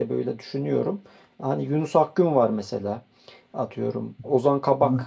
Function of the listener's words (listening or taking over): listening